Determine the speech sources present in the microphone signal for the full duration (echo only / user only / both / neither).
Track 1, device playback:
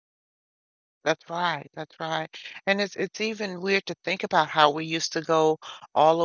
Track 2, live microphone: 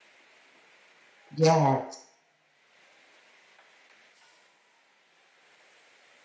user only